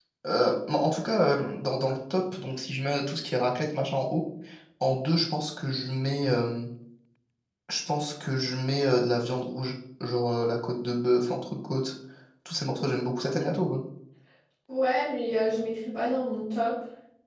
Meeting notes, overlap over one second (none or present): none